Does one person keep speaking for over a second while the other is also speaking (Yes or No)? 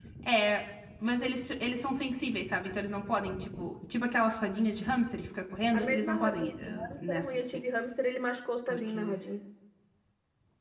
Yes